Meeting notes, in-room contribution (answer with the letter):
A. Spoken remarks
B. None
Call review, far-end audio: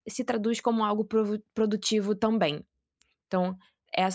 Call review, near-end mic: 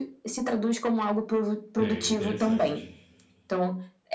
A